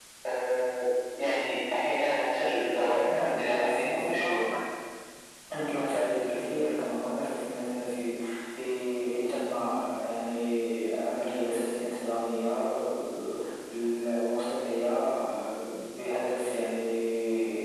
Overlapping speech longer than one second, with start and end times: 3.0-4.5

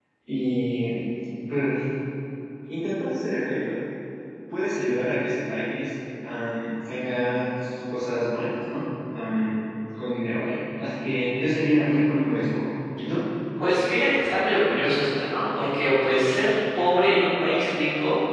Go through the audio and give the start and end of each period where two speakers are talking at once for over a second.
none

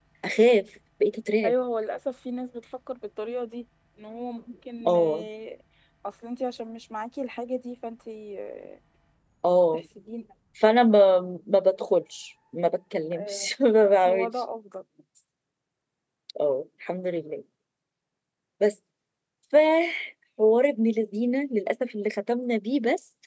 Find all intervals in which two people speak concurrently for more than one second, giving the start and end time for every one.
none

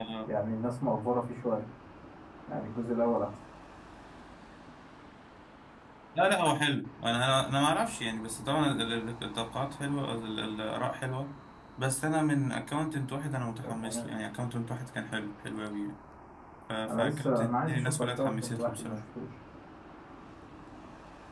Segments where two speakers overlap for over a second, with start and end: 16.9-19.0

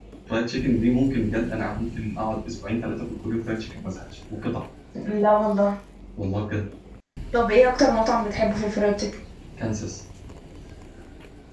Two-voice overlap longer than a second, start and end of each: none

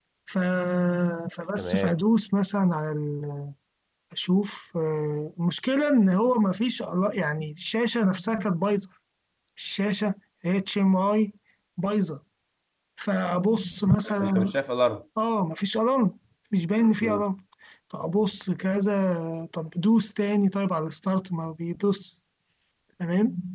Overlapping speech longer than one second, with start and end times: none

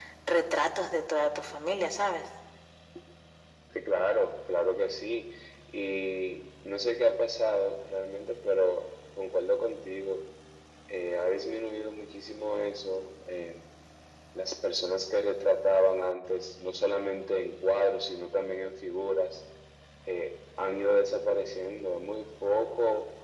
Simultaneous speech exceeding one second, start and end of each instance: none

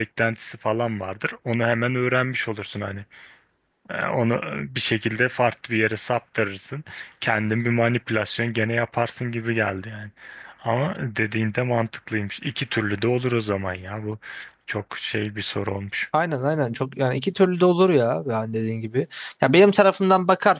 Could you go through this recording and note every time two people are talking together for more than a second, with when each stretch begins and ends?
none

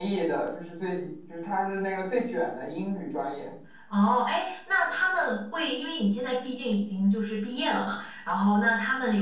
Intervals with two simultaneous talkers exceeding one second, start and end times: none

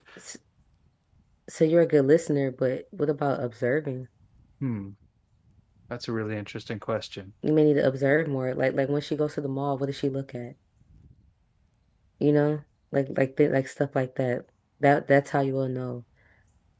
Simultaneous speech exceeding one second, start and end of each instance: none

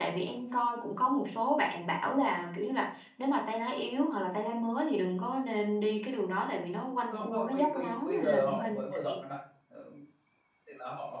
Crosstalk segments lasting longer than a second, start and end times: 7.1-8.7

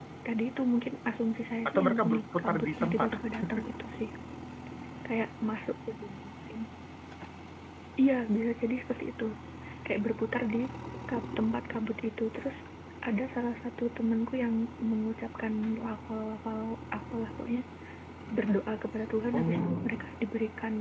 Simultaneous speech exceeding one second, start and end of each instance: 1.7-3.1

